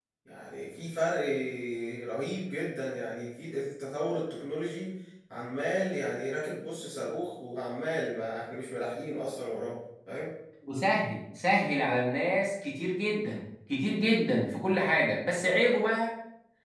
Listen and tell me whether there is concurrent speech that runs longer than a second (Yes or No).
No